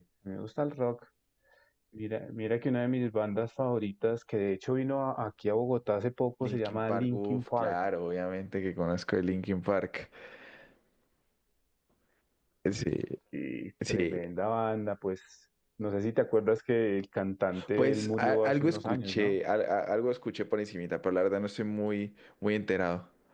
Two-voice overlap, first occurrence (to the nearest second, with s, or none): 6 s